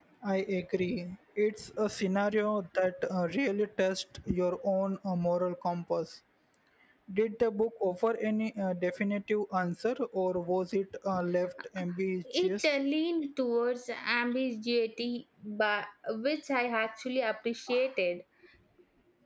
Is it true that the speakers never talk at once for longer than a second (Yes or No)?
Yes